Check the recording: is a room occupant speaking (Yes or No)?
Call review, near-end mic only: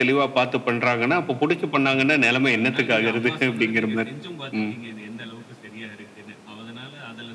Yes